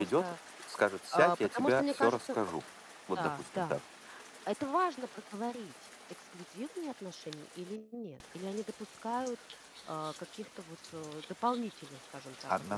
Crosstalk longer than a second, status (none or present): present